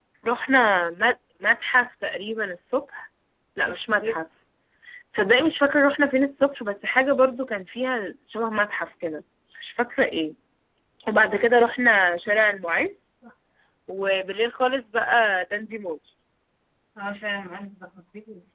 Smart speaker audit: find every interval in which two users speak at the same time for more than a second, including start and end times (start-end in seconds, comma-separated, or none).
none